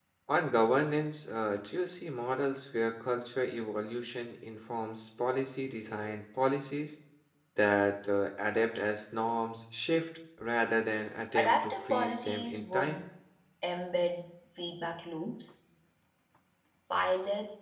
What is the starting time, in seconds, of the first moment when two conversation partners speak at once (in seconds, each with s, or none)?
11.3 s